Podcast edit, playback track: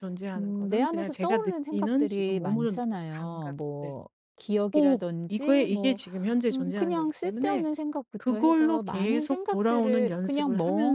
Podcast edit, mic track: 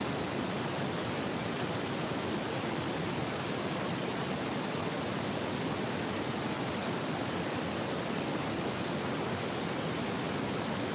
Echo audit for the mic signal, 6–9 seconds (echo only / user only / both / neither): neither